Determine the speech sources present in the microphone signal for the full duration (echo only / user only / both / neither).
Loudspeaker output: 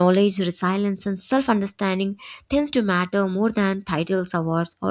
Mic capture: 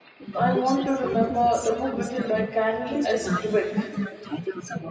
both